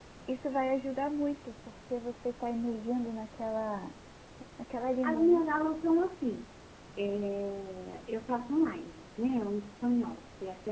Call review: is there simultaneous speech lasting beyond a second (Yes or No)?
No